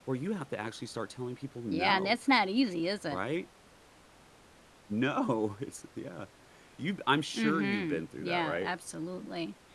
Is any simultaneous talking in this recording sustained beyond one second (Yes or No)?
Yes